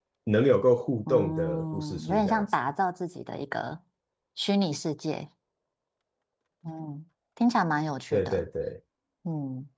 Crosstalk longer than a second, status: present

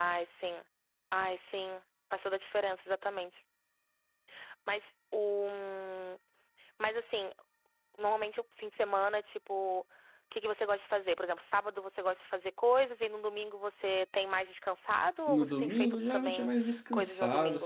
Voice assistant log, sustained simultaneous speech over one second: present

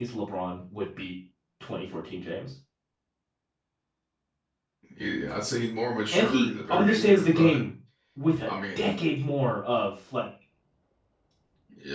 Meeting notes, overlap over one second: present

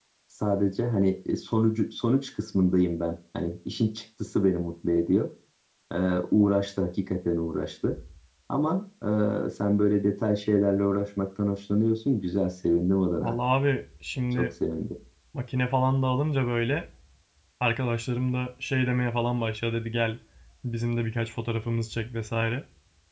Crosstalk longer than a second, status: none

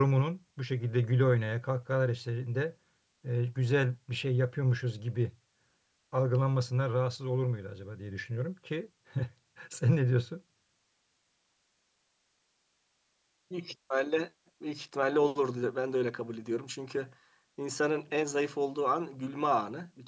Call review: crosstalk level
none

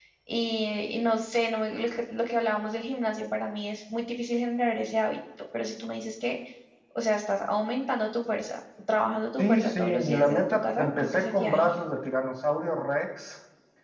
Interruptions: present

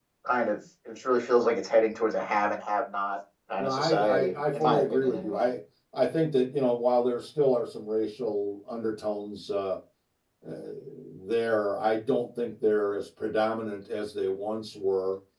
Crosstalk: present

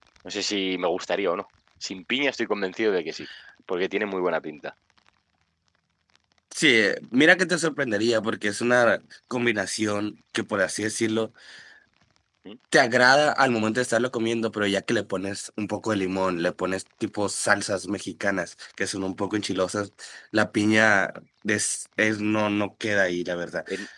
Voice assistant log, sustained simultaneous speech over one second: none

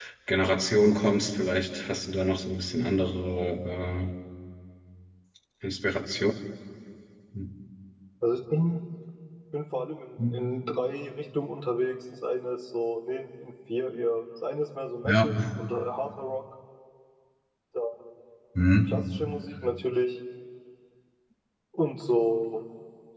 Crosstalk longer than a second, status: none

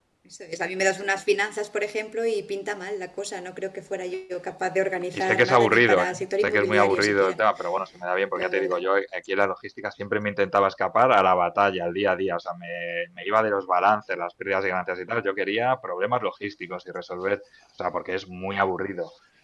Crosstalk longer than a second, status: present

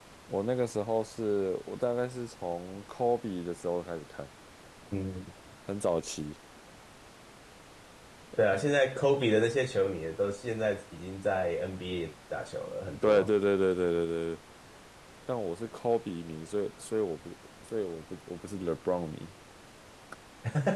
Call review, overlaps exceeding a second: none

